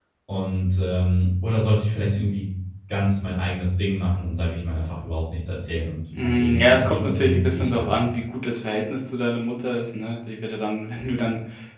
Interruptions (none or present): present